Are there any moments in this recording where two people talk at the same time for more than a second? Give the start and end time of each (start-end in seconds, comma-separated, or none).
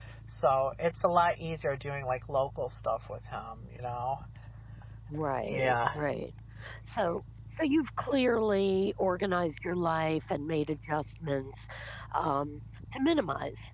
none